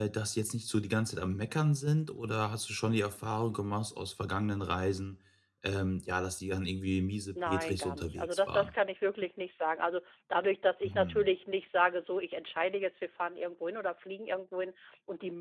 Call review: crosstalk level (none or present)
present